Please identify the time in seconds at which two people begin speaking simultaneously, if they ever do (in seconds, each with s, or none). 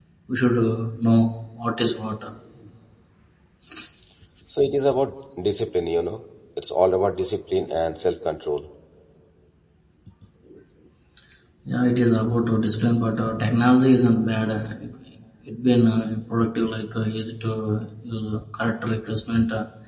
none